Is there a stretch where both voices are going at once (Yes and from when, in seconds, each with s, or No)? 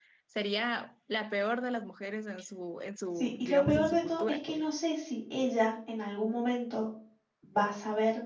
Yes, from 3.1 s